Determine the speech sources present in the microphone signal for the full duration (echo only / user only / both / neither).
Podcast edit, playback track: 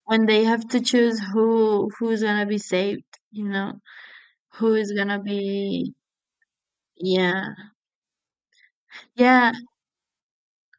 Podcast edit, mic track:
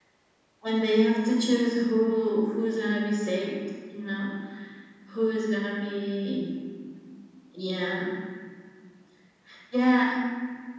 echo only